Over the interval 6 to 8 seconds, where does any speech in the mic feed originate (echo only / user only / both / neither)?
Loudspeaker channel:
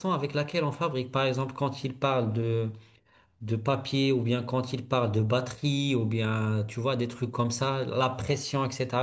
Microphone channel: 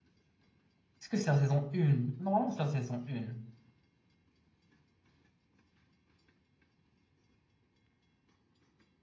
neither